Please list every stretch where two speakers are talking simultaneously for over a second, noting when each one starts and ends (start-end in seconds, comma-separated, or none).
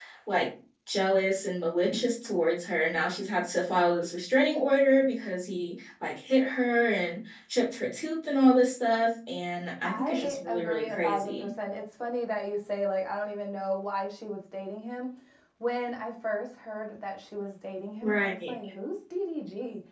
9.8-11.5